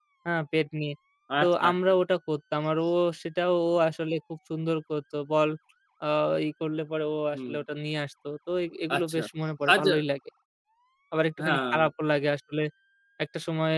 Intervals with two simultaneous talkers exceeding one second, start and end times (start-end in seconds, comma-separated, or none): none